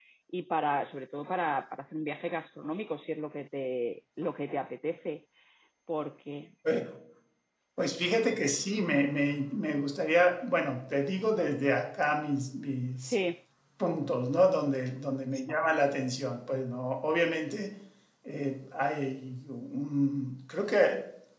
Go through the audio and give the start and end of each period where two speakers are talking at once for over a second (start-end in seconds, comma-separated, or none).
none